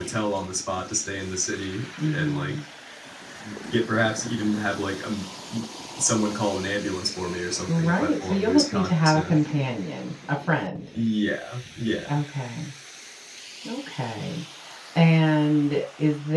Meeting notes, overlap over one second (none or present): present